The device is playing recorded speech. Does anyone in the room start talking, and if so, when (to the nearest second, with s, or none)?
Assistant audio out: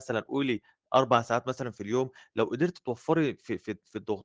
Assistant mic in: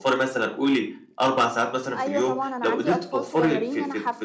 2 s